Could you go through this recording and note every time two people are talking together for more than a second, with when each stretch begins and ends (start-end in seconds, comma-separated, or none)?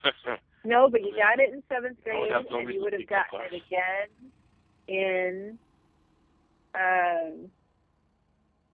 2.1-3.6